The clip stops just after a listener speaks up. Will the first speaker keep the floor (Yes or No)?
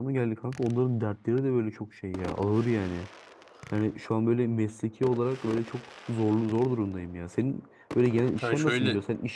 Yes